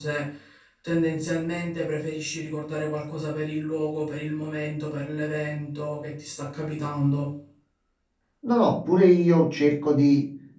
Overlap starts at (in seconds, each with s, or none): none